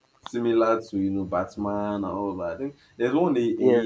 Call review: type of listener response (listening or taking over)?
listening